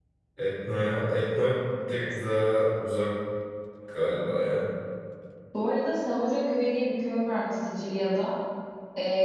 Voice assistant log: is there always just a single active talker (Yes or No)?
Yes